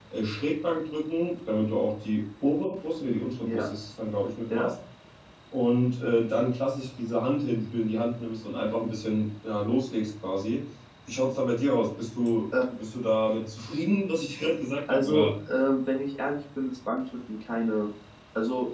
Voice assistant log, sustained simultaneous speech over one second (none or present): none